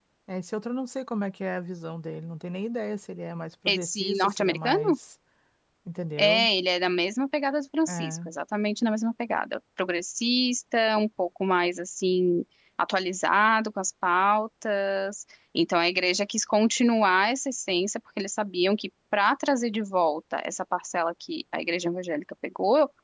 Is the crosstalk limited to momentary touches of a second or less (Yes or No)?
No